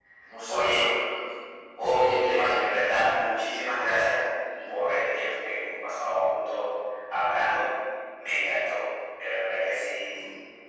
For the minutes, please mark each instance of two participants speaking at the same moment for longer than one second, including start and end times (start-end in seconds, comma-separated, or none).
1.8-3.1